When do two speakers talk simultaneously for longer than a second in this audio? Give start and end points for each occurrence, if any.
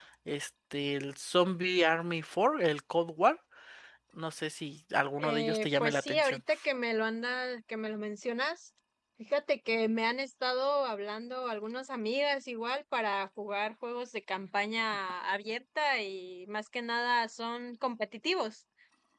5.2-6.4

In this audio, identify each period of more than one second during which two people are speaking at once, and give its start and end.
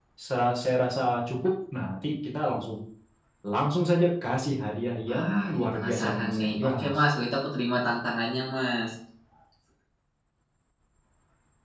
5.1-7.0

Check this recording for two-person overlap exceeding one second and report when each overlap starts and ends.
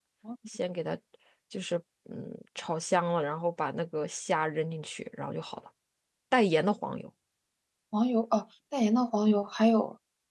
none

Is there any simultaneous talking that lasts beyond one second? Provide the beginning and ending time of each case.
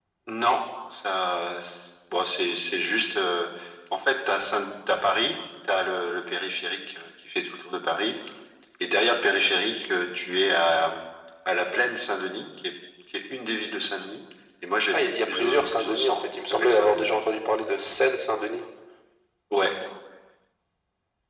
14.9-17.1

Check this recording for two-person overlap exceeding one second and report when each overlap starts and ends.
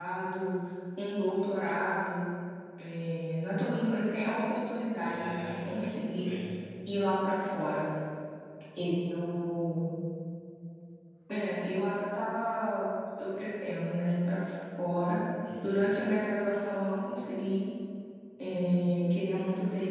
5.1-6.3

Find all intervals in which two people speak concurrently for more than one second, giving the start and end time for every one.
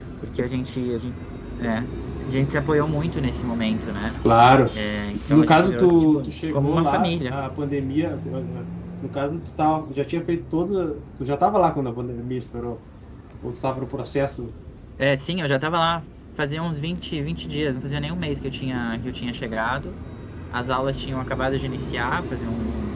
5.3-7.3

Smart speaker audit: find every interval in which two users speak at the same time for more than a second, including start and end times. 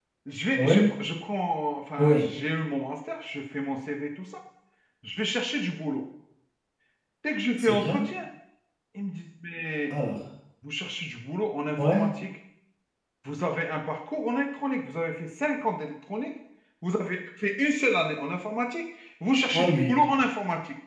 none

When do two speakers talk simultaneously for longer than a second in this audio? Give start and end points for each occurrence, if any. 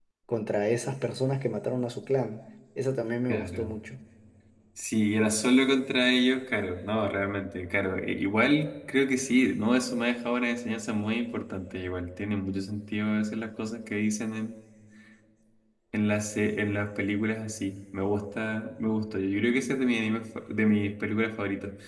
none

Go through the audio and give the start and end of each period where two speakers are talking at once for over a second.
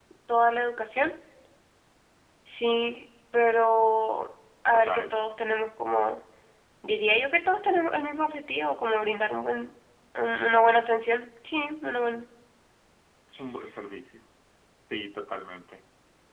none

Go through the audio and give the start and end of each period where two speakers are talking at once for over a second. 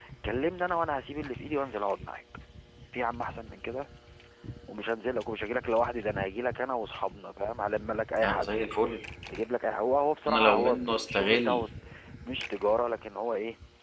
10.3-11.6

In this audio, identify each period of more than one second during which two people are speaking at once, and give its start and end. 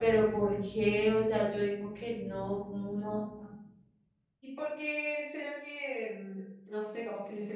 none

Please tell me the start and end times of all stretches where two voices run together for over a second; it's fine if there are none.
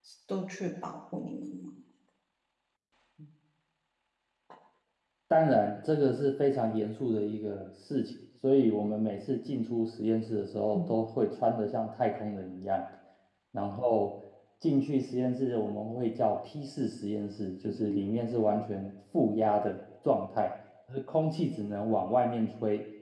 none

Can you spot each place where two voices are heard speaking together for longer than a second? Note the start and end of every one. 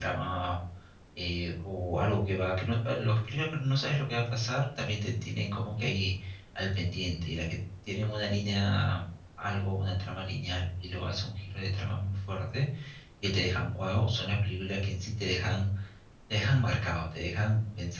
none

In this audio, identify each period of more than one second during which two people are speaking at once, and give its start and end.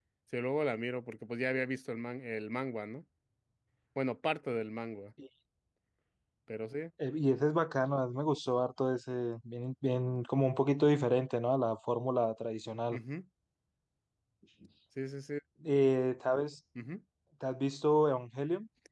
none

